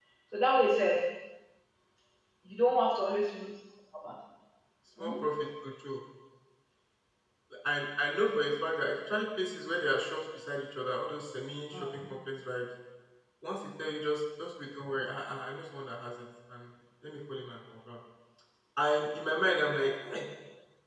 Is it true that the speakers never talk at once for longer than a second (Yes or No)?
Yes